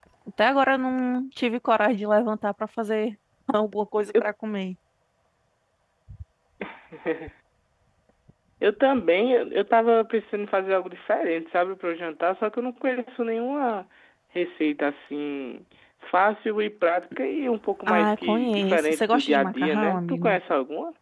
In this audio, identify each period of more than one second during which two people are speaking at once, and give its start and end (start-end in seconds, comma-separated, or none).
17.9-20.4